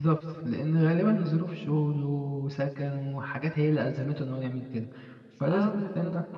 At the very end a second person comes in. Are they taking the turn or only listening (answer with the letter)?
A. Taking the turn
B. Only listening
A